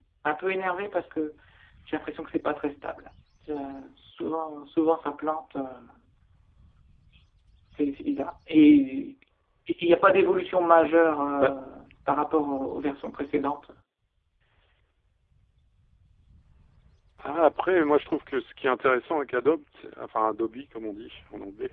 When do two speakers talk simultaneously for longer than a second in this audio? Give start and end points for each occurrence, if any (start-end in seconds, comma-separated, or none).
none